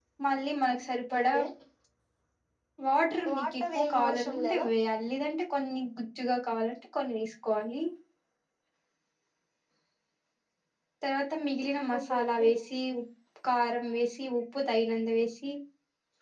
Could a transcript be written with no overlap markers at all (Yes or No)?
No